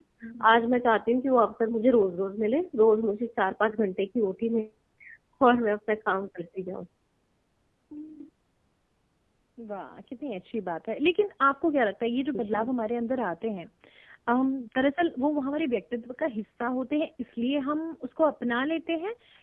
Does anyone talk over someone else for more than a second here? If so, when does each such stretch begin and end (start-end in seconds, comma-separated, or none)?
none